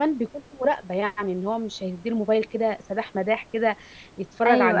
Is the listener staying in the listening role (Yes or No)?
Yes